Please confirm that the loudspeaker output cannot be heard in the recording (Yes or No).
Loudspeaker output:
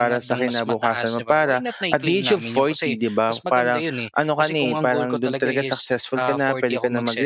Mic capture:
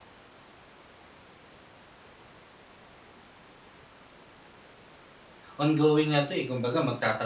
Yes